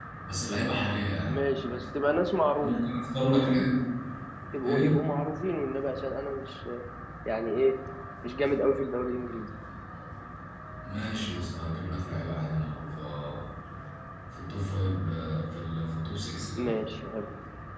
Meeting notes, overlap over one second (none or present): none